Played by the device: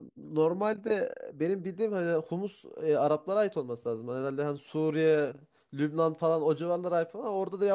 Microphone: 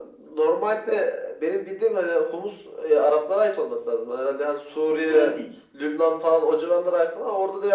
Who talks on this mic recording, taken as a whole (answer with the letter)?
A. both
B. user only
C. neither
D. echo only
A